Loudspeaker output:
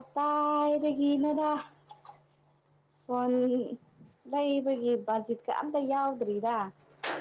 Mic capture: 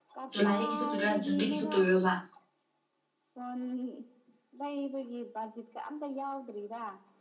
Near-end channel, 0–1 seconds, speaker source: both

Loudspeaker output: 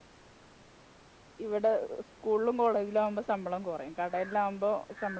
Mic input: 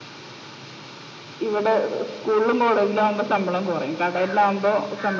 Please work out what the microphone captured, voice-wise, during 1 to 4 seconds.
echo only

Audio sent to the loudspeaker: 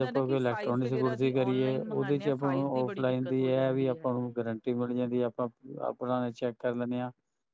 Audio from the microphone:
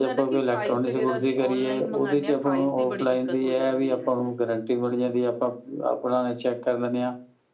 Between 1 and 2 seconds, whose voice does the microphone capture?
echo only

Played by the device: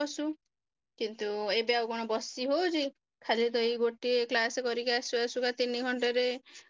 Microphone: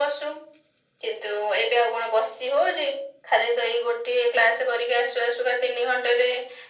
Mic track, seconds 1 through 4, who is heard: echo only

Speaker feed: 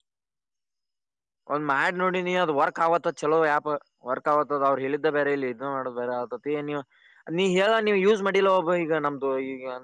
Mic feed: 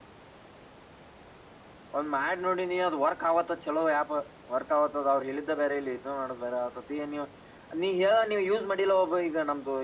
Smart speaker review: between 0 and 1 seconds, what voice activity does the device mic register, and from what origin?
neither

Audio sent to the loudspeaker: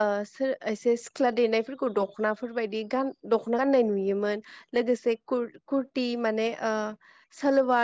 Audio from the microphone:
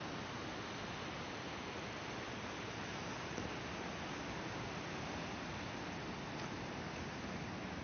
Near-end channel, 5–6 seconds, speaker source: neither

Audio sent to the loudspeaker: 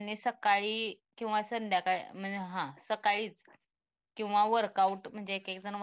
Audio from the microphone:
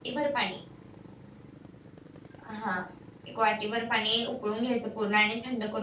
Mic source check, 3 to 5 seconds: user only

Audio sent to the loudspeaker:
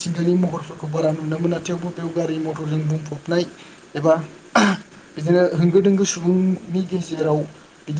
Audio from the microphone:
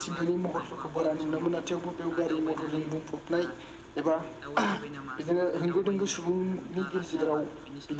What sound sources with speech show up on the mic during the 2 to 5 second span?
both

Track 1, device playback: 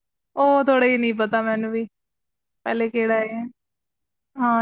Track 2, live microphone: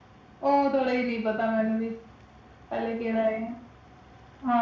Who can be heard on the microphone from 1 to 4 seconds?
echo only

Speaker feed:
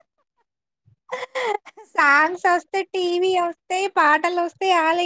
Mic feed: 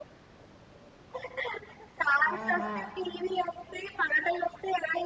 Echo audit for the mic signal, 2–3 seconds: both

